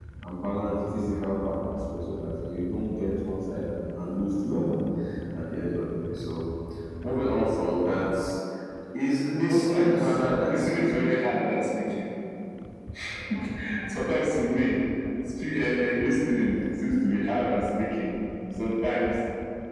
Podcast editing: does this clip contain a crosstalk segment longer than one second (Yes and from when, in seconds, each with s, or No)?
Yes, from 9.4 s